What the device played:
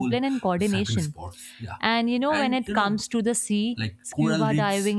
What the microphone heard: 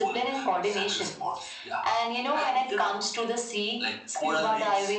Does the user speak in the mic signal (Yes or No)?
No